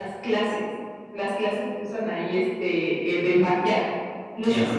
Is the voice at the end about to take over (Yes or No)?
No